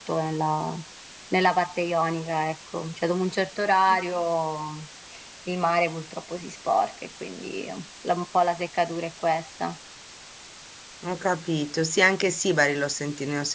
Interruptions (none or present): none